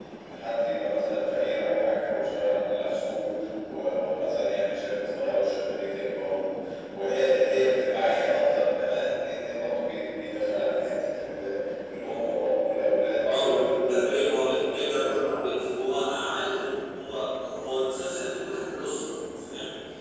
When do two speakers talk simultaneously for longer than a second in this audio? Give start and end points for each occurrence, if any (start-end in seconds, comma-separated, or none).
13.2-15.1